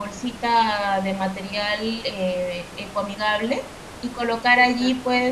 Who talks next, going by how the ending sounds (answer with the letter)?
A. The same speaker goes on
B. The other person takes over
A